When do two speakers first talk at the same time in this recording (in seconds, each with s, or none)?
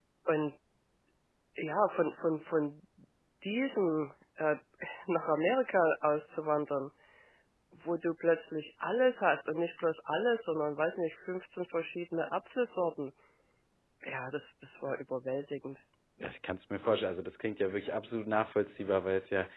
none